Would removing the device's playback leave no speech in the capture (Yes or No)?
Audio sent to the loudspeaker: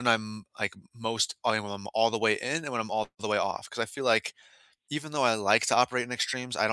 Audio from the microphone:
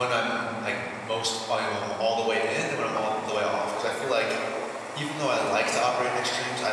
Yes